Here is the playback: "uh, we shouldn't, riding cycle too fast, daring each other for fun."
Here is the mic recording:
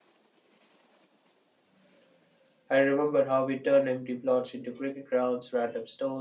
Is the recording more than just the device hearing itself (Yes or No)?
Yes